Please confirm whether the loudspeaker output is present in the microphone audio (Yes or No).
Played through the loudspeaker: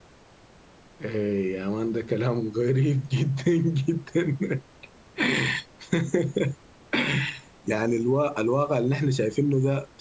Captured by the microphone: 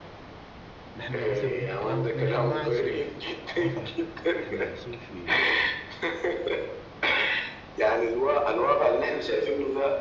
Yes